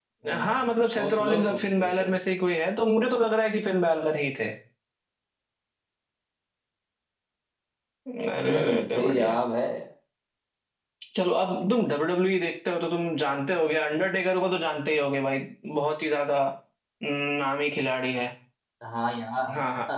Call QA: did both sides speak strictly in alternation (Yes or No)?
No